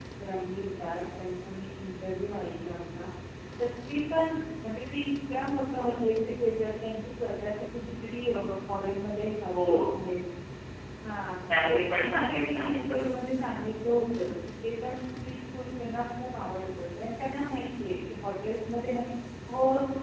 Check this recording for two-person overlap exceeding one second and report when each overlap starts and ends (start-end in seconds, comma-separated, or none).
11.7-13.1